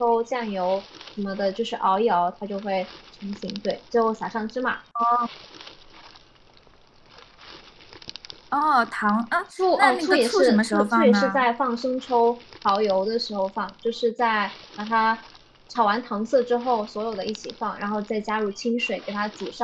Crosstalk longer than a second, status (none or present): present